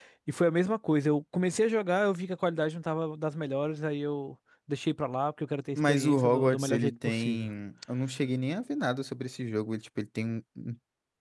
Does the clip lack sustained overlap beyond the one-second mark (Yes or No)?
No